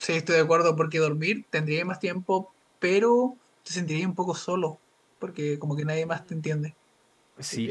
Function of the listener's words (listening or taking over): taking over